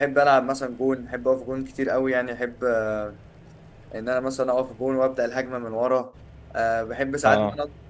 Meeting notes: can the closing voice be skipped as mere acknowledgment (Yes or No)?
Yes